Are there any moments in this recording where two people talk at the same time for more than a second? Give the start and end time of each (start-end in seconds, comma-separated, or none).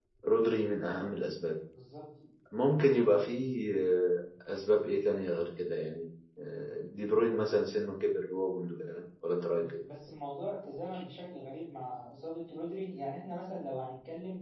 none